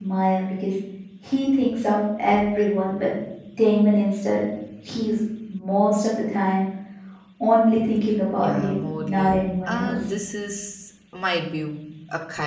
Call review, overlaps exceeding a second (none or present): present